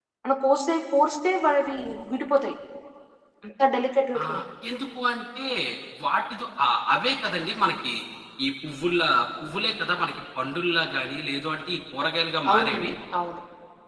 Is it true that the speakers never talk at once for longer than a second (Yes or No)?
Yes